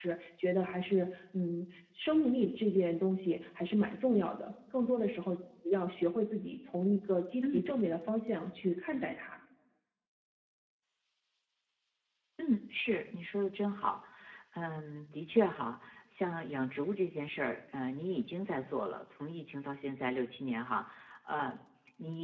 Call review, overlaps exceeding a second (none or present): none